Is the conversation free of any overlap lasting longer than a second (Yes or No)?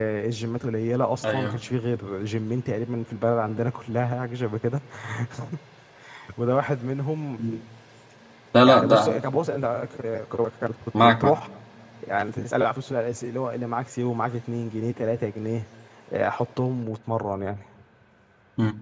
Yes